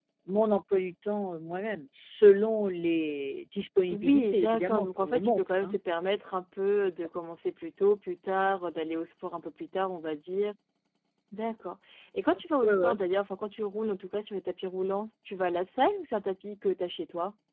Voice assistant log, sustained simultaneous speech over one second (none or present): present